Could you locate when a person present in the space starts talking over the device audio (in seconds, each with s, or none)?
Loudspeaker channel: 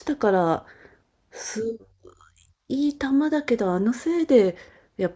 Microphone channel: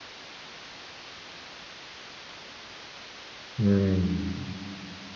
3.6 s